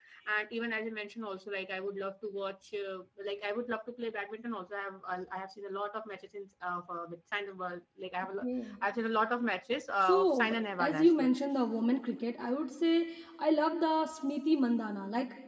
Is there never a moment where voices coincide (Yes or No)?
No